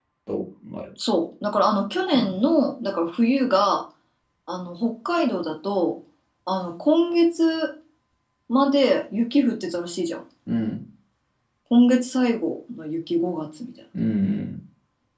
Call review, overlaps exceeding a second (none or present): none